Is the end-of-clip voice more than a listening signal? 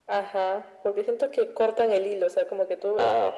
No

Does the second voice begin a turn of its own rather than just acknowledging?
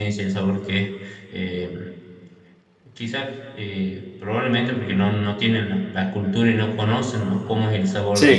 No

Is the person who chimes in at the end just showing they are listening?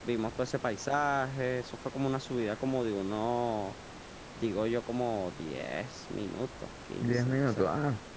No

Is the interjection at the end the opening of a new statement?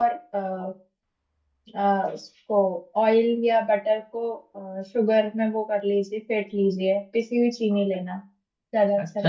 Yes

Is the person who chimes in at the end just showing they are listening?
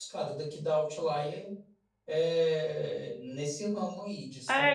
No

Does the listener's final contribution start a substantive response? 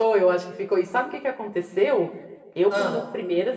No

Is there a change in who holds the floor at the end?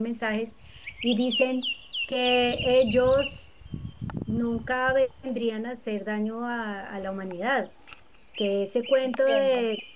No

